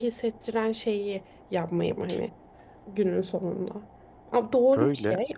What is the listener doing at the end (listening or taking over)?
listening